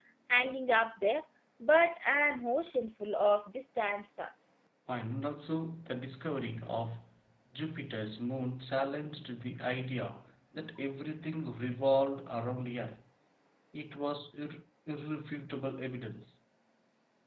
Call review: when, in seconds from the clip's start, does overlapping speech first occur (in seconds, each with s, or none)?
none